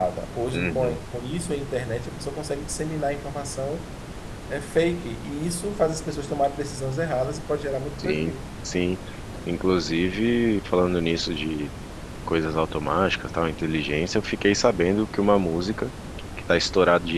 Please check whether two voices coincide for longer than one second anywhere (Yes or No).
No